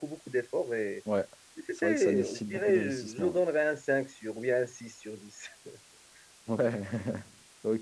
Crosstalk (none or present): present